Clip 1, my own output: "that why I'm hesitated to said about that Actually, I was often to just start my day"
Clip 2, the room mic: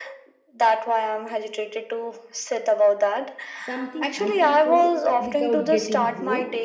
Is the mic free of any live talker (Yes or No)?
No